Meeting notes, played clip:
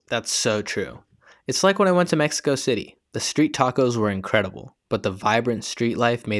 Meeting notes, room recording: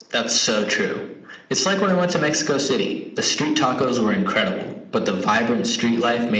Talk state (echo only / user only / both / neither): echo only